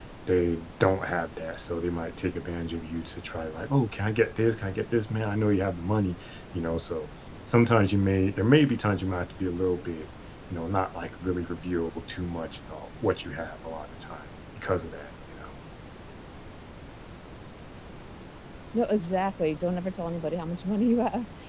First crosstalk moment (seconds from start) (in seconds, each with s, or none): none